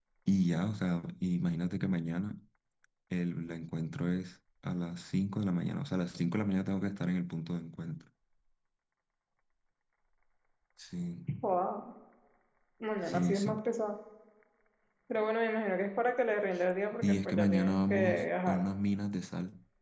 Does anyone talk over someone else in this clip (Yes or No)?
Yes